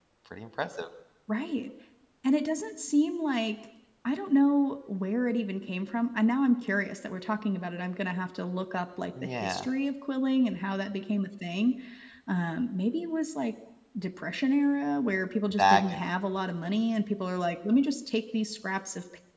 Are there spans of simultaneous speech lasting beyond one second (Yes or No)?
No